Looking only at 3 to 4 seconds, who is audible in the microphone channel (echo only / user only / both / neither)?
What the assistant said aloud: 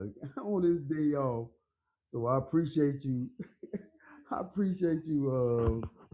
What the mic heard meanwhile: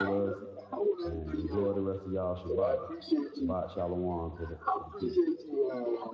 both